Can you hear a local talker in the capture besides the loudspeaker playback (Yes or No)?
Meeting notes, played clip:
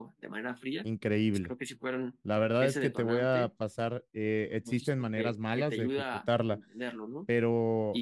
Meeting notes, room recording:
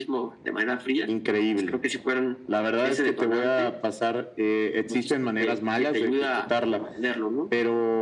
No